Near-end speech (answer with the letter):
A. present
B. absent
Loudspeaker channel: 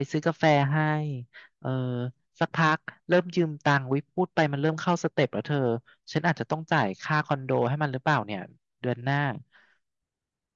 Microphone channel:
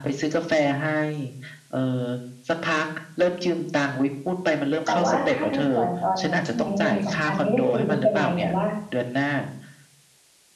A